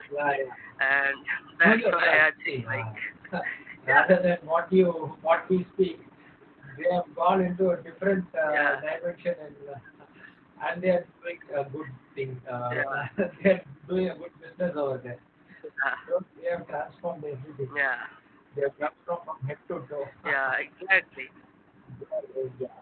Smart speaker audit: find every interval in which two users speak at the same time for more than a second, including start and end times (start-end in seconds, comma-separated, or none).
1.6-2.8